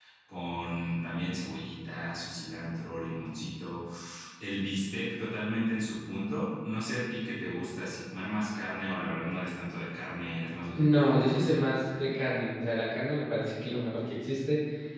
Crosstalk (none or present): present